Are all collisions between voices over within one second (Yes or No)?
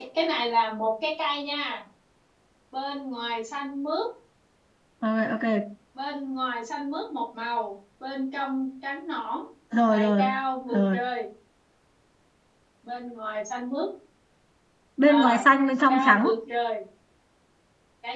Yes